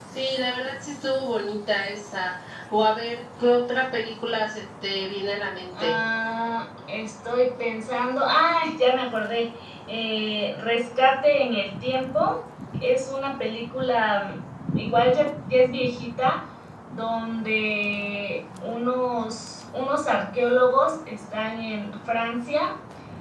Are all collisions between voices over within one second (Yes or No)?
Yes